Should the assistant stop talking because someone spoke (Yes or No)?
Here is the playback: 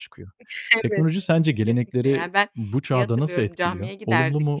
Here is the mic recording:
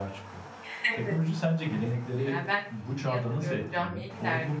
No